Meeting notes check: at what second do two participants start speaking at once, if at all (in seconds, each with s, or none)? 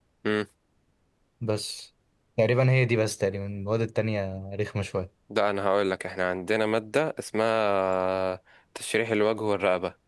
none